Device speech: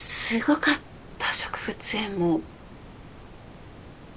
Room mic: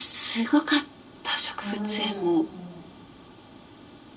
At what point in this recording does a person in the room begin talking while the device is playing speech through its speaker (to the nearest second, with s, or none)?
2 s